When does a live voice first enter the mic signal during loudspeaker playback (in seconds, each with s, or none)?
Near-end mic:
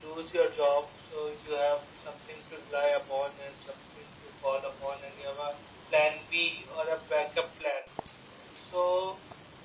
none